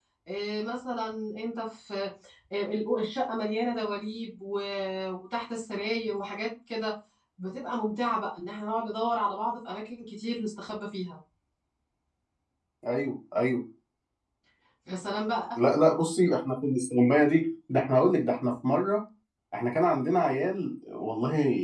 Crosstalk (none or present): none